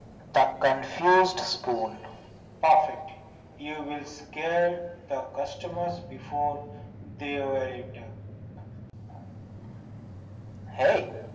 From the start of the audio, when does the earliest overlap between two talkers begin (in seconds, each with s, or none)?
none